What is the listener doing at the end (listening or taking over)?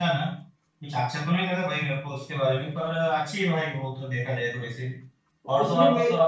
listening